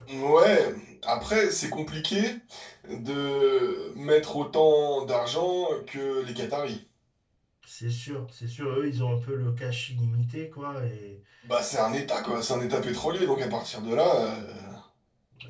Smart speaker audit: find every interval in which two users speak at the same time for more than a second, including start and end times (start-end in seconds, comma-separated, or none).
none